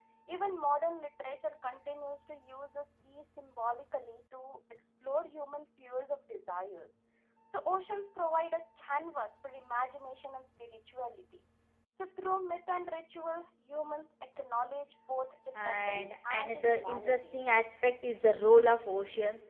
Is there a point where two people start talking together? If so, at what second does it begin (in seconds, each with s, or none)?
15.5 s